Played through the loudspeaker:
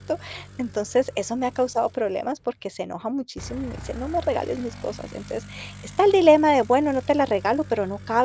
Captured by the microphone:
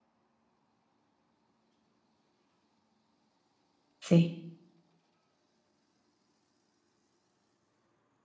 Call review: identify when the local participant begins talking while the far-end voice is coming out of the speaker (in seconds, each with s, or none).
4.0 s